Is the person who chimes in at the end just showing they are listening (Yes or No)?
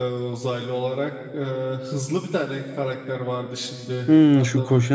No